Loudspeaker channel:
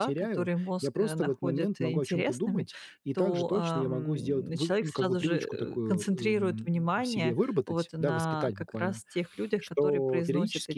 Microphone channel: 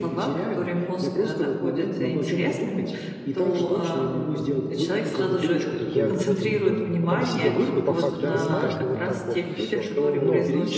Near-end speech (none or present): present